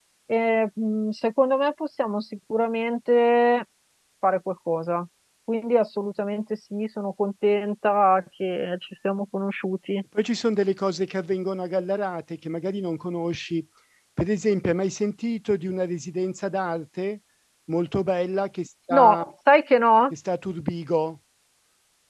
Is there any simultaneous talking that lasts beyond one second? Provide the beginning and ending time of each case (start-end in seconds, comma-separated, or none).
none